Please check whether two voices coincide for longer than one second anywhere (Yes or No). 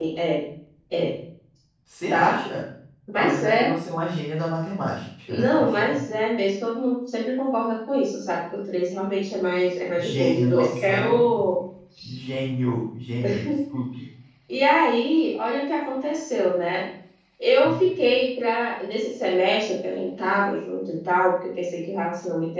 Yes